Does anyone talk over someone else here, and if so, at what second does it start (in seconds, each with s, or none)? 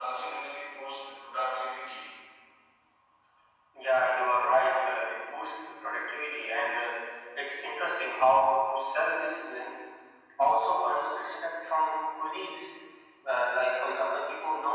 none